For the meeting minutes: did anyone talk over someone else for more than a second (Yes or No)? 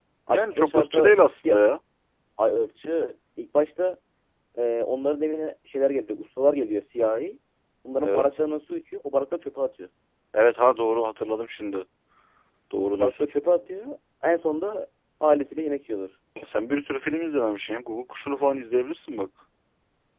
Yes